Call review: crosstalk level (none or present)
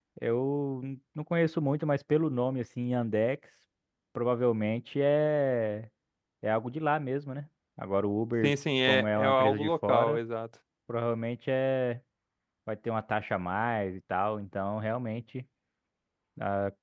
present